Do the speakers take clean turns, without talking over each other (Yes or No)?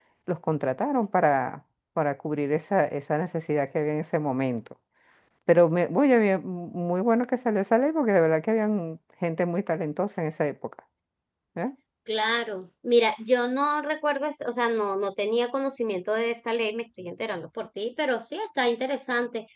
Yes